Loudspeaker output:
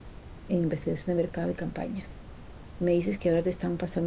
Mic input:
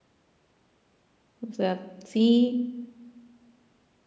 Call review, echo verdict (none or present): none